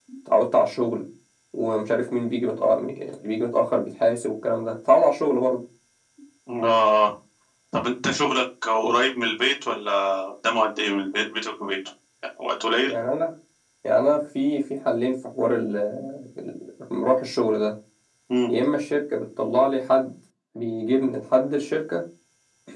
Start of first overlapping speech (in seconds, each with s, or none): none